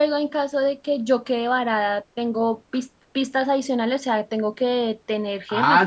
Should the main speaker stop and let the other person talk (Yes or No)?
Yes